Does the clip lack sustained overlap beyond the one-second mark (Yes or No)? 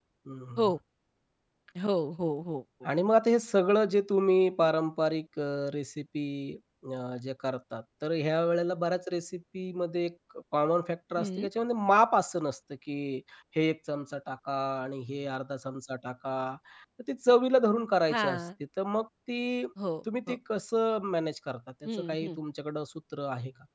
Yes